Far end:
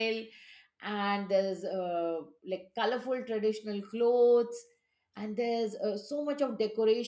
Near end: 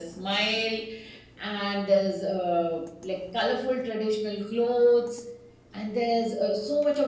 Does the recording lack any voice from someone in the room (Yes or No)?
Yes